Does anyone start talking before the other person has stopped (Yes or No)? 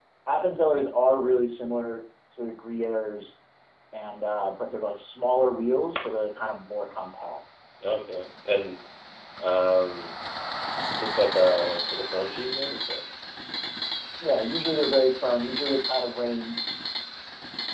No